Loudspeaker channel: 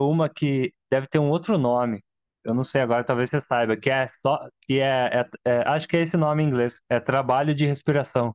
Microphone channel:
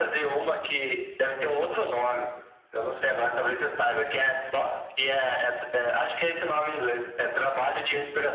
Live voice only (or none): none